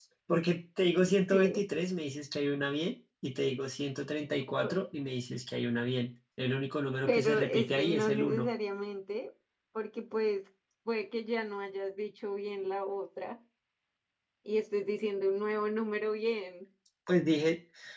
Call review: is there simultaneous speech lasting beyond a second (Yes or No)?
Yes